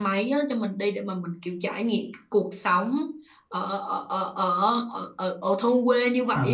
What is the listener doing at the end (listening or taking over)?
taking over